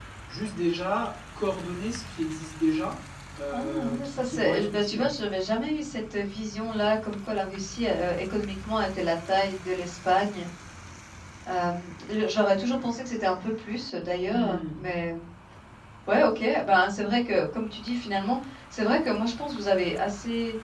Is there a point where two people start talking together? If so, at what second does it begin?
4 s

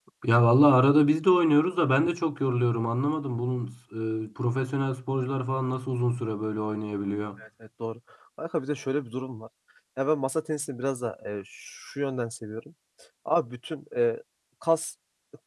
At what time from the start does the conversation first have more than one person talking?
none

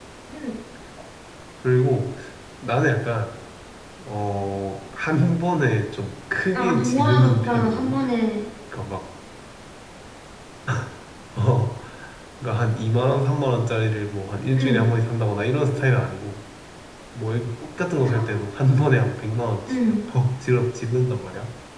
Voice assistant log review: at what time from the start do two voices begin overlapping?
7 s

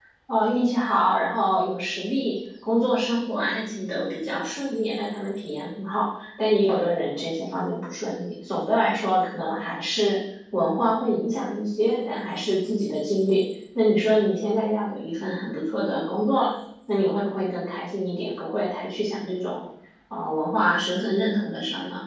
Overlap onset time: none

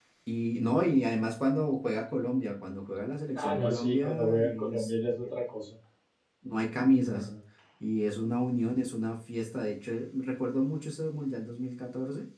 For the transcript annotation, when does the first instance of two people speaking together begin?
3 s

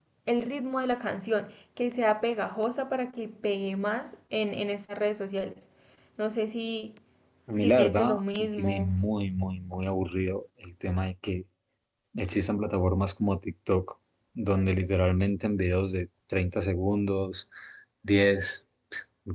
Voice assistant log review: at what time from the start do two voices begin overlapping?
8 s

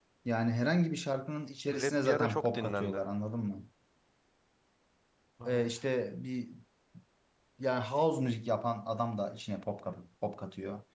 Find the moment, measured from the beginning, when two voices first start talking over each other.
2 s

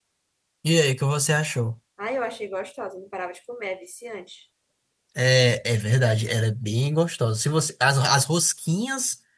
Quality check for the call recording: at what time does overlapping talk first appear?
none

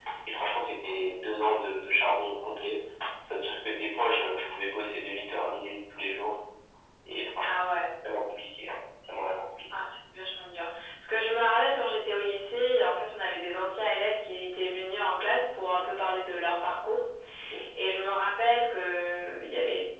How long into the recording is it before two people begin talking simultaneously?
none

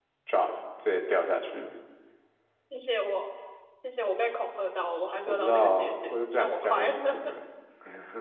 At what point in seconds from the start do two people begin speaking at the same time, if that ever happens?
5 s

